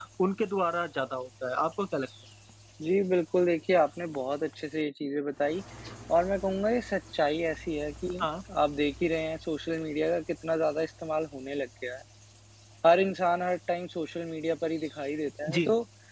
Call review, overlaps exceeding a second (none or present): none